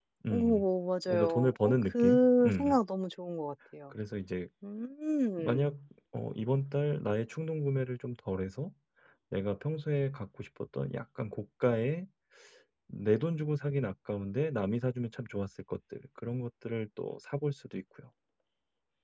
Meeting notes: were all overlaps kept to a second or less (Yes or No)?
No